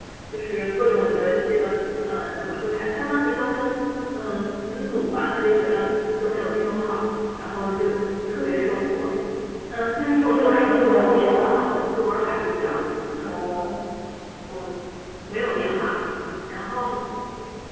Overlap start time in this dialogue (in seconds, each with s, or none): 10.3 s